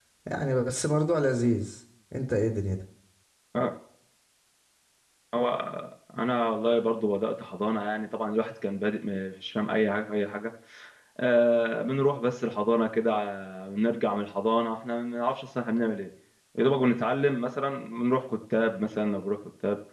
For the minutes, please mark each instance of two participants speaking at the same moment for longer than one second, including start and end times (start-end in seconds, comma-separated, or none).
none